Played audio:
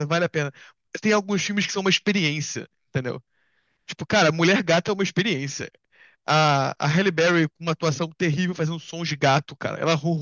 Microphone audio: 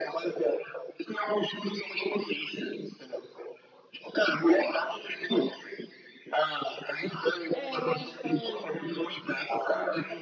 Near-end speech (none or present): present